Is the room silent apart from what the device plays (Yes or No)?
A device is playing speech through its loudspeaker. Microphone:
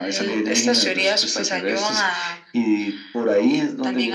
Yes